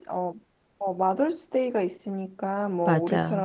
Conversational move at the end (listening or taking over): listening